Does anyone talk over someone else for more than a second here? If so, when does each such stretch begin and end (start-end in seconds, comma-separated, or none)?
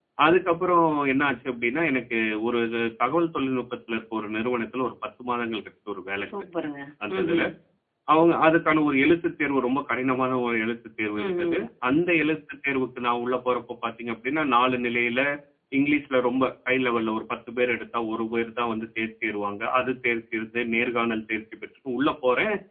none